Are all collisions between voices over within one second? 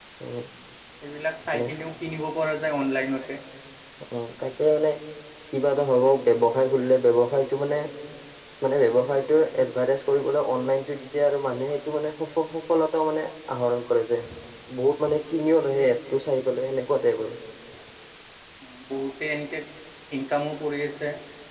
Yes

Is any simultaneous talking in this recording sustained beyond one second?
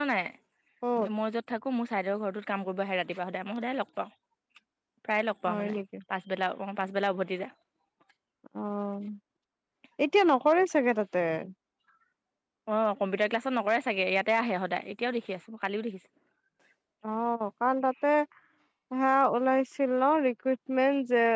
No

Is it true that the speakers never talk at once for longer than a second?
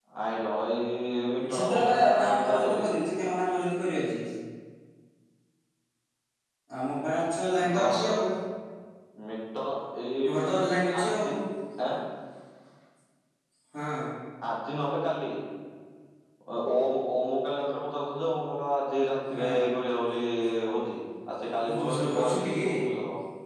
No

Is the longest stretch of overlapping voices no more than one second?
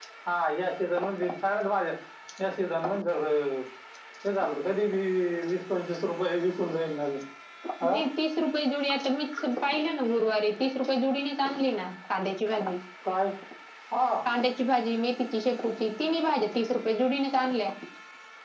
Yes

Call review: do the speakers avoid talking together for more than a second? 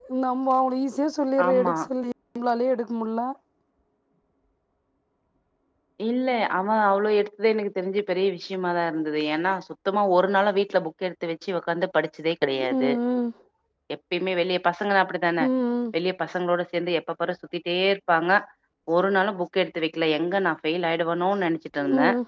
Yes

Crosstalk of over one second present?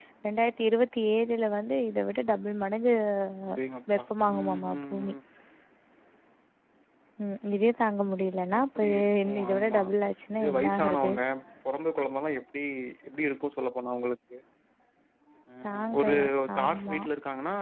Yes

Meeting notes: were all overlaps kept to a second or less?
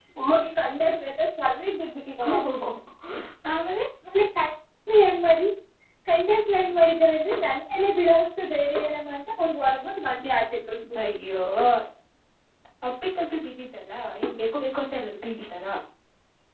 Yes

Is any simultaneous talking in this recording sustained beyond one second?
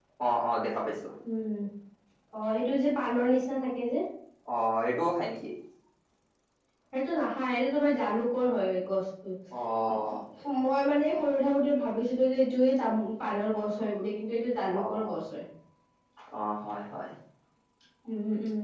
No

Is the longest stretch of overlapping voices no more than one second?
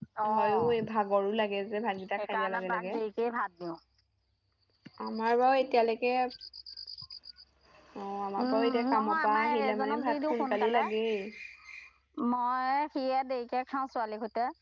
No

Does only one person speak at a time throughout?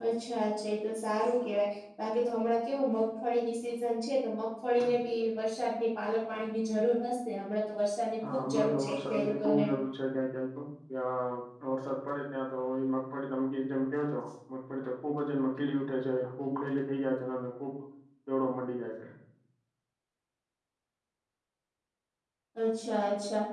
No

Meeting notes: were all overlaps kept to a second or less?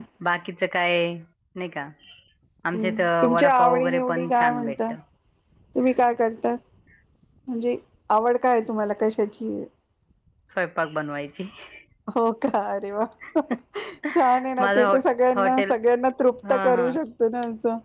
No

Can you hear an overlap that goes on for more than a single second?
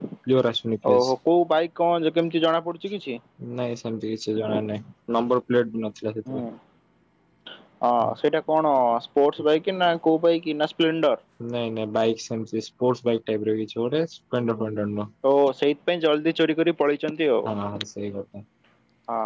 No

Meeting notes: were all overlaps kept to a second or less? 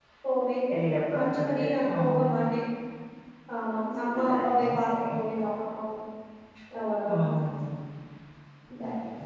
No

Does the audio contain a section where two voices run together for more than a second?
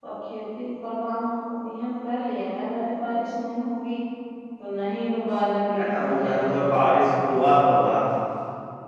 Yes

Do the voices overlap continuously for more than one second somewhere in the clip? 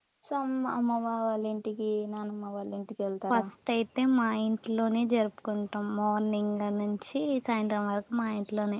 No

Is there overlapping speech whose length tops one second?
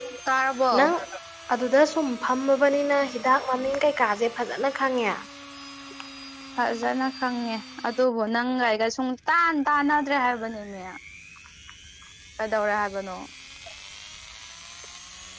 No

